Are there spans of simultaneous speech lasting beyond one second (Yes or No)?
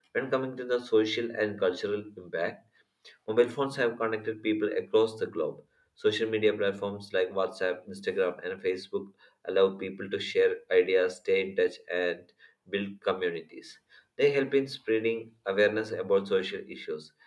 No